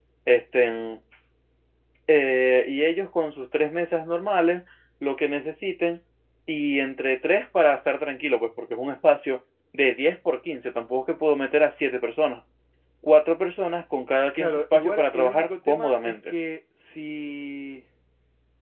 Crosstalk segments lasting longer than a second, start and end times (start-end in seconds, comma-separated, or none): 14.3-16.3